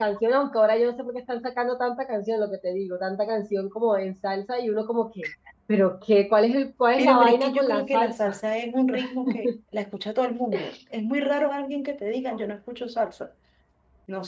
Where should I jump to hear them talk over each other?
7 s

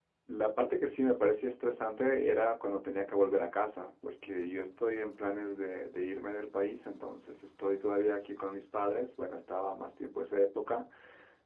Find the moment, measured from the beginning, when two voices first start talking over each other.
none

